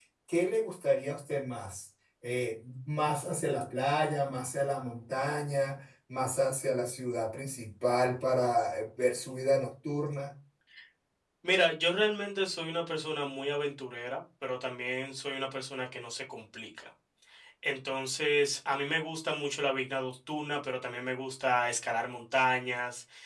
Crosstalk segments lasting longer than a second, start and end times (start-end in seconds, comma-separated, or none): none